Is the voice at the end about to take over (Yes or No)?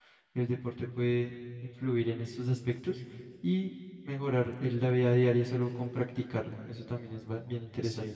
Yes